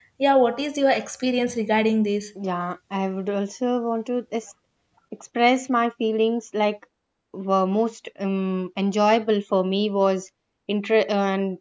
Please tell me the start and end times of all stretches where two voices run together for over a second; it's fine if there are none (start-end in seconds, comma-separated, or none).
none